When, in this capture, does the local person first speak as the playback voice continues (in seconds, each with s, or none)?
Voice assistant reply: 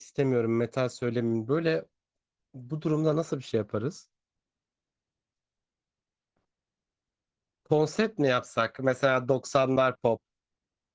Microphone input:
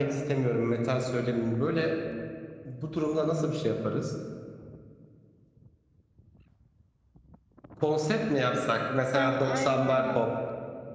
9.1 s